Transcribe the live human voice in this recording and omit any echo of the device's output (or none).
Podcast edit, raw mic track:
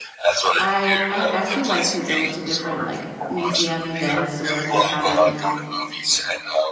I I actually like to go to different, like, museum events or if they're having,